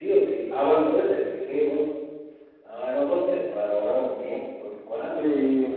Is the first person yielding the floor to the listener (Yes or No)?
Yes